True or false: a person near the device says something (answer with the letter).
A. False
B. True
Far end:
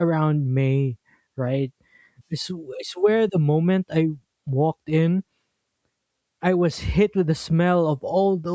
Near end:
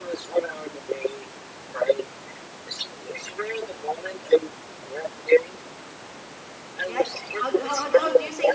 B